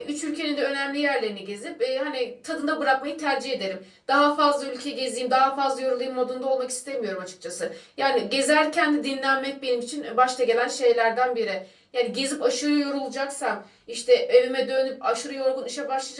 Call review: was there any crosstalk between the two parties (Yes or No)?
No